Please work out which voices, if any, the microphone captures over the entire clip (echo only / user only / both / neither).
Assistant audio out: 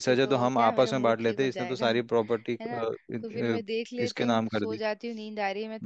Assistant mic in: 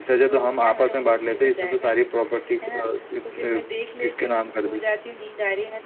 echo only